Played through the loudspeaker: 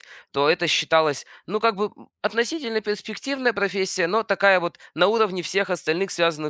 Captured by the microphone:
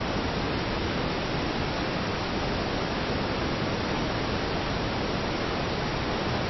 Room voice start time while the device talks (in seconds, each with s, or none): none